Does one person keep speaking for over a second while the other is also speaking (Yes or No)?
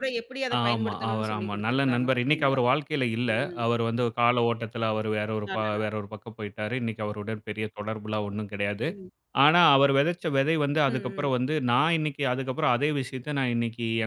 Yes